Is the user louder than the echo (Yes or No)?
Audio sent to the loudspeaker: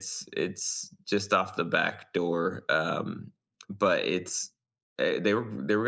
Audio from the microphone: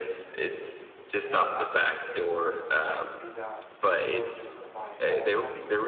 No